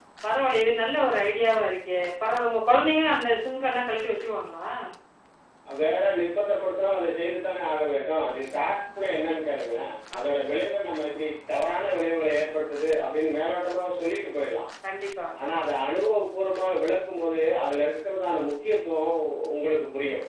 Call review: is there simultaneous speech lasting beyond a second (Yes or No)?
No